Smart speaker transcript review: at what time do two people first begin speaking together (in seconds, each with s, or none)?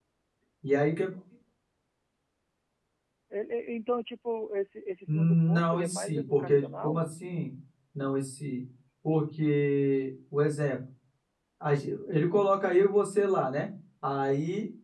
5.1 s